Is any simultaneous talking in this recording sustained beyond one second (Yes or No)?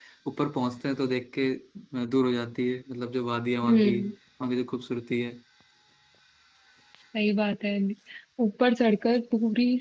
No